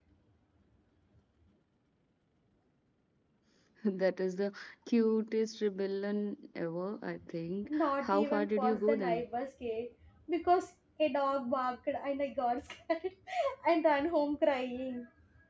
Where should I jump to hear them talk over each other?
7.6 s

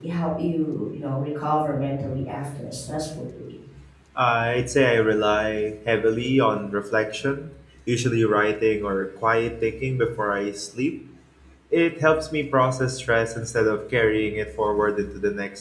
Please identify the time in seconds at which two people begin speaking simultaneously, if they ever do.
none

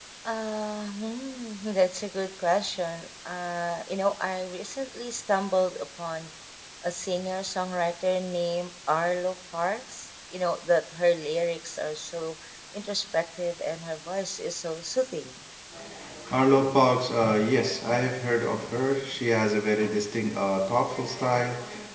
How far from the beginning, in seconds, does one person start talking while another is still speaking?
none

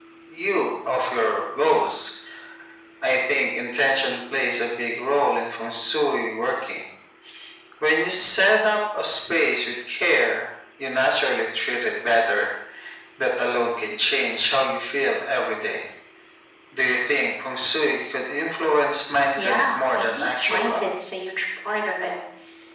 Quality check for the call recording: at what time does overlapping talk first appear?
19.4 s

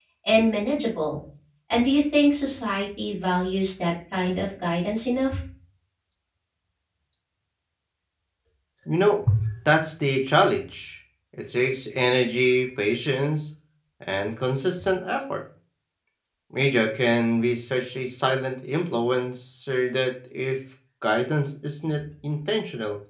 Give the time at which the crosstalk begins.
none

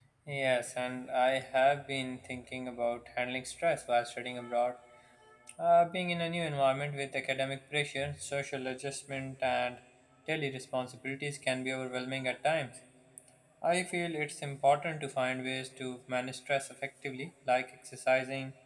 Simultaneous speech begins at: none

